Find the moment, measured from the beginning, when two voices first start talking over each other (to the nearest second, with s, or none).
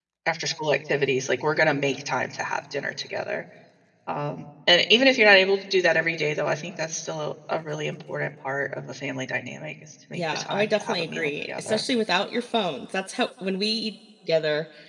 10 s